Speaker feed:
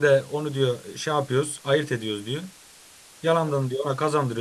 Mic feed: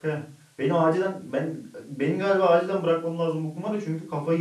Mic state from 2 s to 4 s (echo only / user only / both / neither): user only